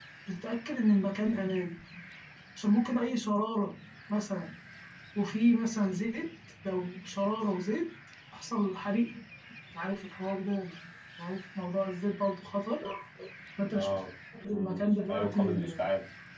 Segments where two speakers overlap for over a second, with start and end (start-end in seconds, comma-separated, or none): 14.5-15.8